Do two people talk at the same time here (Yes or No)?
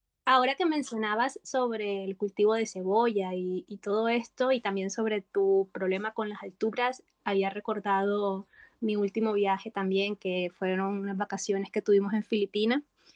No